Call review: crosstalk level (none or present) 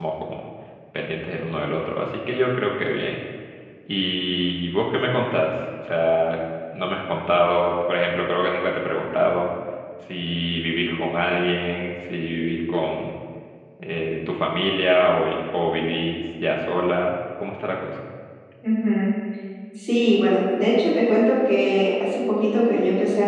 none